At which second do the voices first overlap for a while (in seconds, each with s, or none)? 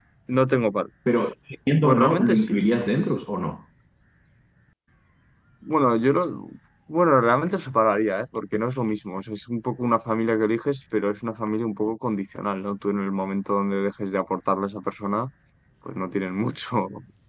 1.8 s